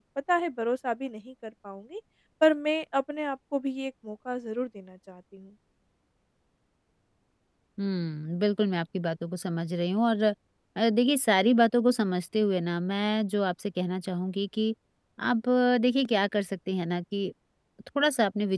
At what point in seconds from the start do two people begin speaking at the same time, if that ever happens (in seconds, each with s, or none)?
none